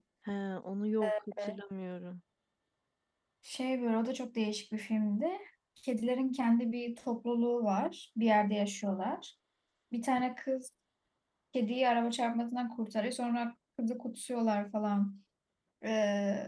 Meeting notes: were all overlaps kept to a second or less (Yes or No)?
Yes